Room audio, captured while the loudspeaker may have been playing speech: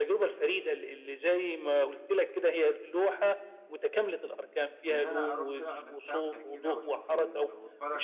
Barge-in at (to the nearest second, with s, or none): 5 s